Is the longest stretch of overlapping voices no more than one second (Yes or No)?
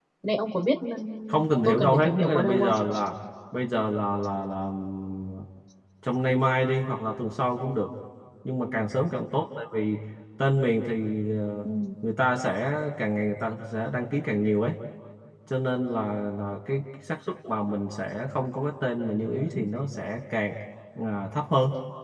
No